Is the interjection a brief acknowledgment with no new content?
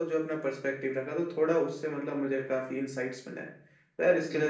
No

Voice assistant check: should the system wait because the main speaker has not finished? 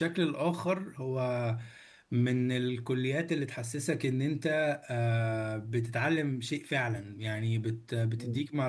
Yes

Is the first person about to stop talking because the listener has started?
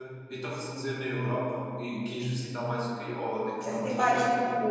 Yes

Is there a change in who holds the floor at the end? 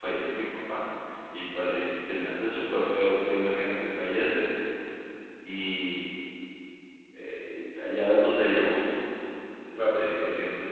No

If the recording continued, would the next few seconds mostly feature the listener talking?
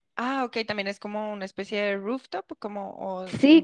Yes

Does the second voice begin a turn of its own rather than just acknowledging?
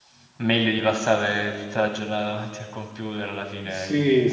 Yes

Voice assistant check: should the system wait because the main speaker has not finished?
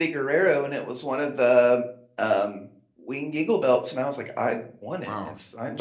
No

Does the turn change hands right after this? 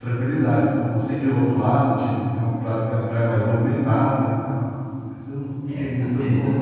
Yes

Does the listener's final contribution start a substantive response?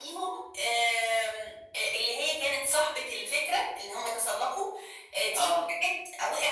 No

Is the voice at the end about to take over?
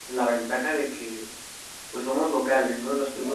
No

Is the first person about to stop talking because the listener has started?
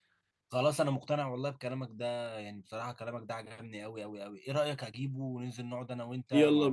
Yes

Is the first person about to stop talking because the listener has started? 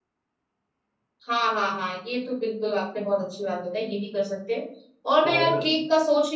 No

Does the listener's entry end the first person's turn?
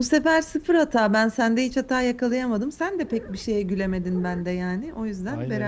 Yes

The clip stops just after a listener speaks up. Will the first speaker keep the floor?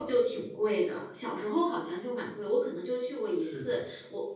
Yes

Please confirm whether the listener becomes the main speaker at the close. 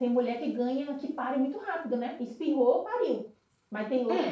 Yes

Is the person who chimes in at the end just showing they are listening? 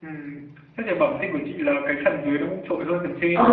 No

